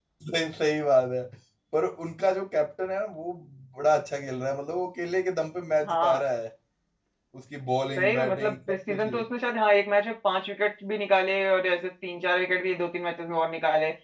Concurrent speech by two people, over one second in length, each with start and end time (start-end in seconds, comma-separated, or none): 8.0-9.2